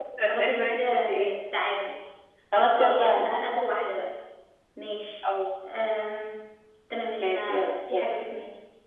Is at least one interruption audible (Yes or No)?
Yes